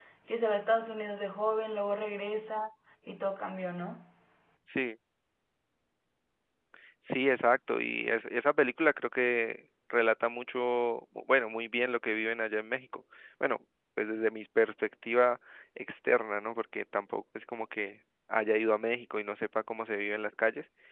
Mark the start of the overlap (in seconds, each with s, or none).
none